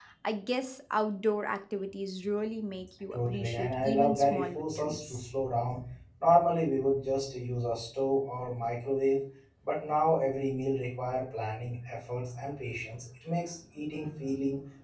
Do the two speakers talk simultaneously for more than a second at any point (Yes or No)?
Yes